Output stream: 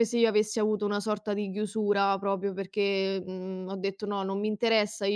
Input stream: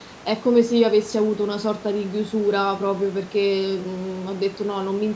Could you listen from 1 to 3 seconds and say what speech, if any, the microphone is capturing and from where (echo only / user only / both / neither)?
echo only